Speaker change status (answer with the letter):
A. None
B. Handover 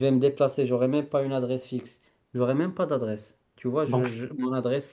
A